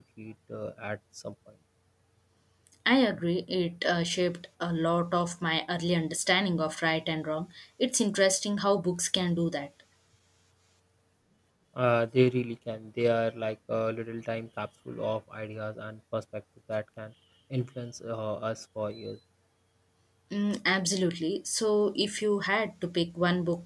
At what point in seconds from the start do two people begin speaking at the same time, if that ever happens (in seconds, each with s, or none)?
none